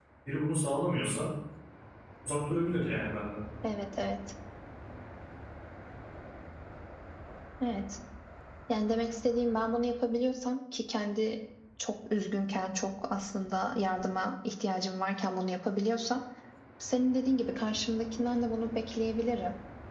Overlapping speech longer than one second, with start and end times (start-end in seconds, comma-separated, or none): none